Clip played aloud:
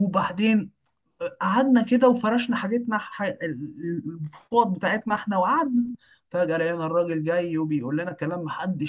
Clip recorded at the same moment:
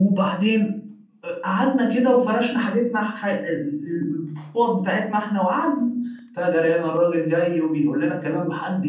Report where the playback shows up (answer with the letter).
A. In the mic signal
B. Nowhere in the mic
A